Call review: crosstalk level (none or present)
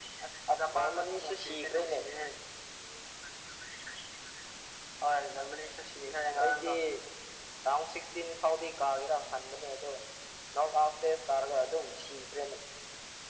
present